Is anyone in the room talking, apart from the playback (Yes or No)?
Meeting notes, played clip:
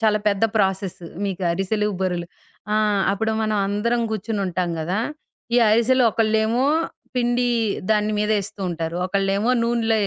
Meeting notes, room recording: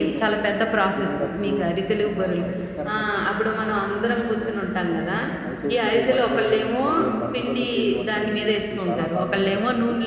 Yes